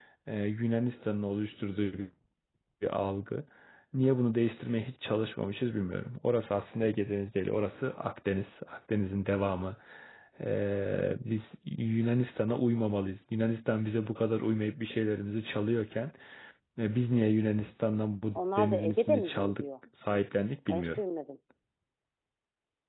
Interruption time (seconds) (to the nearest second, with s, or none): 18 s